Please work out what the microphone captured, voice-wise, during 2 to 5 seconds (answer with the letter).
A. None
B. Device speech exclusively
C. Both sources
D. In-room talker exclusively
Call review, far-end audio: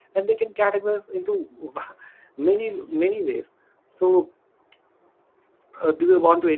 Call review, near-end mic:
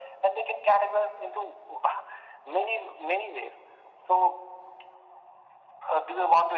B